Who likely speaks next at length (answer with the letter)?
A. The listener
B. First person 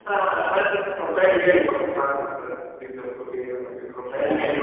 B